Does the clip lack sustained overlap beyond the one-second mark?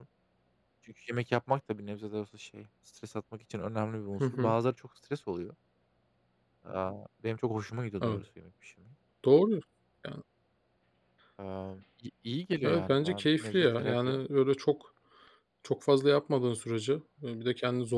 No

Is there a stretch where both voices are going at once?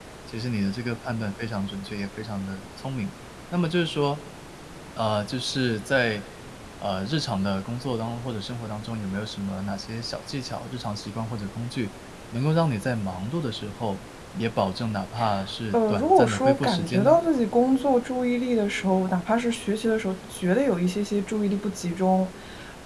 Yes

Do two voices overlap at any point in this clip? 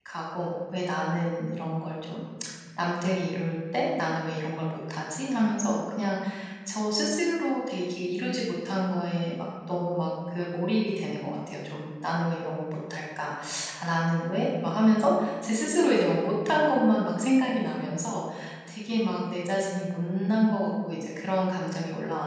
No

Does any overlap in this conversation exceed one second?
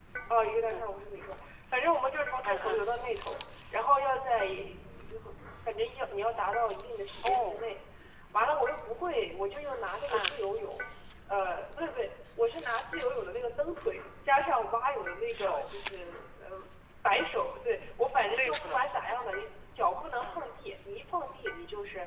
No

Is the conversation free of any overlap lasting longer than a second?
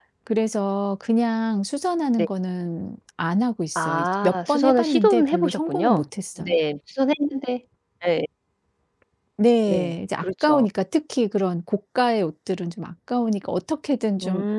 No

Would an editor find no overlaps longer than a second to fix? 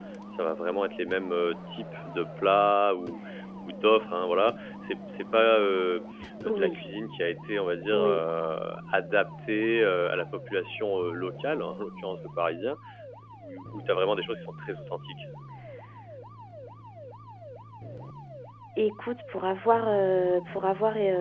Yes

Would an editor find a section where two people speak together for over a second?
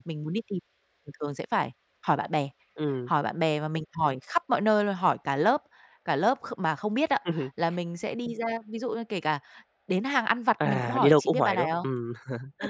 Yes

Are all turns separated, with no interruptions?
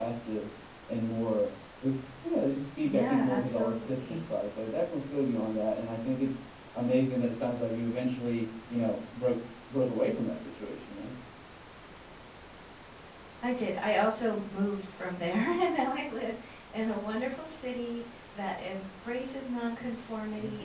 No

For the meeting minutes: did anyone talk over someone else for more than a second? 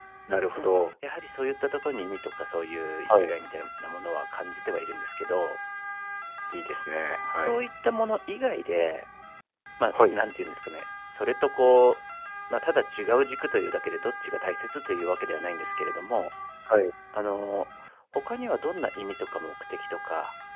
No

